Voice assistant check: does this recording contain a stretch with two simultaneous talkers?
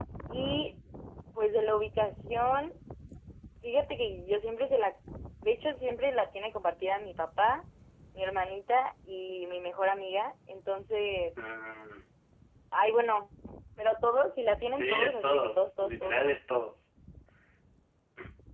Yes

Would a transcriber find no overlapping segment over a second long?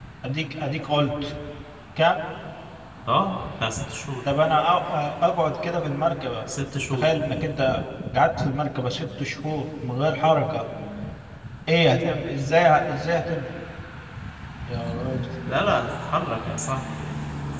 Yes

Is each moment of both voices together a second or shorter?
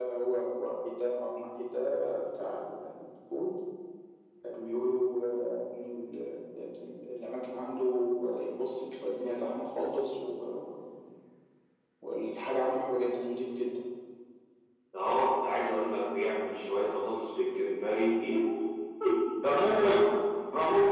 Yes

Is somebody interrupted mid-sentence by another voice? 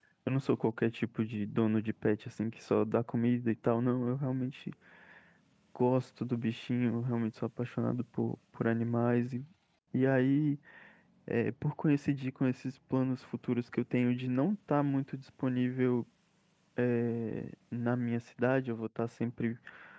No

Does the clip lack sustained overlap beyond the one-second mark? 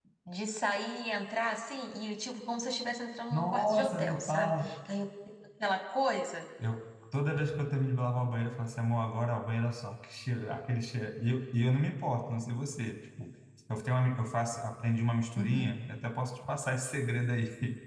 No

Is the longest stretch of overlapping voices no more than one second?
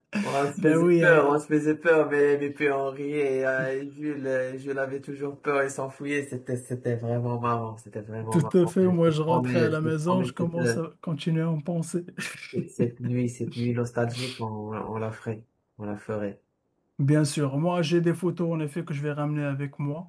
No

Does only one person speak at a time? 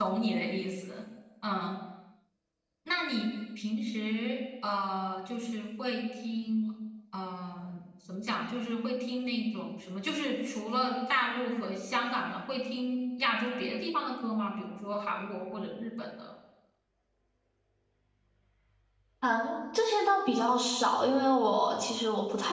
Yes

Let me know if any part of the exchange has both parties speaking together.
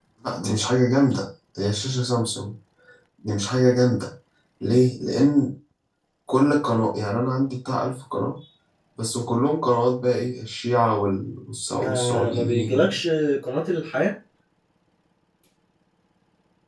Yes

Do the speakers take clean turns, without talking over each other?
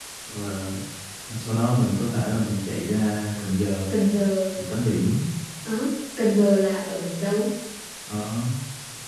Yes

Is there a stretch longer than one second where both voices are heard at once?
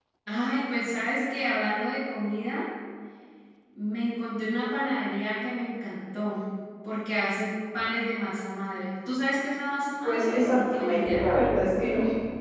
Yes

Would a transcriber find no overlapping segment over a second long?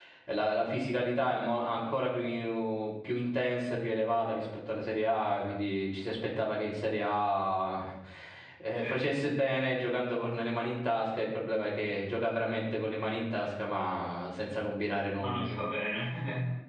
Yes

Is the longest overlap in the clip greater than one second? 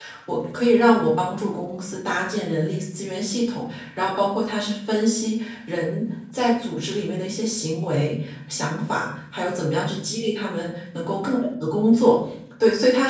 No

